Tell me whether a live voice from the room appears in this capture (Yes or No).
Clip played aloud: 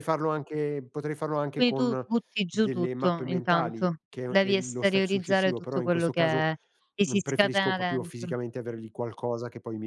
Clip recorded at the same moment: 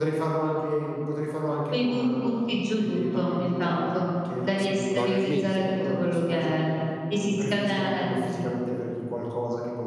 Yes